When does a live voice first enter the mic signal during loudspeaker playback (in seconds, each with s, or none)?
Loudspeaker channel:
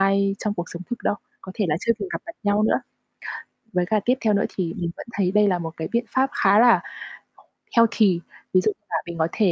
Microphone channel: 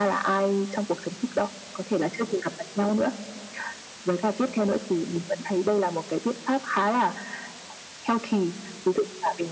none